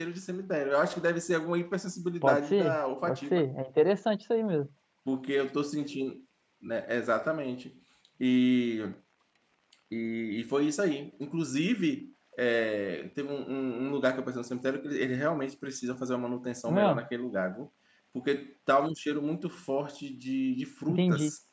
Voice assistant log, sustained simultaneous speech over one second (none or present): present